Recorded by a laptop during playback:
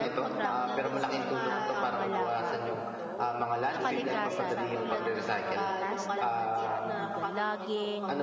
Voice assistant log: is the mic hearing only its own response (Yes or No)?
No